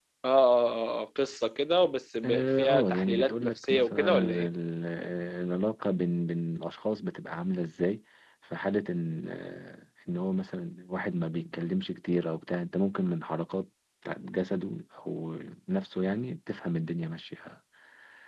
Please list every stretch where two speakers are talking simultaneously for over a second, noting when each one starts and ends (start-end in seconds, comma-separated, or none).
2.2-4.5